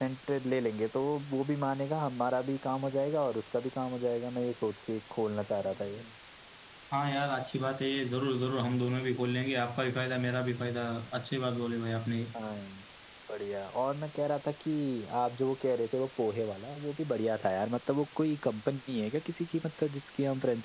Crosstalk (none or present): none